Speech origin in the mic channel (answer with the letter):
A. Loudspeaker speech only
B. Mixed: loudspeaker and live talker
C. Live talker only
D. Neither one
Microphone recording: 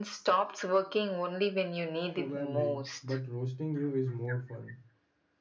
B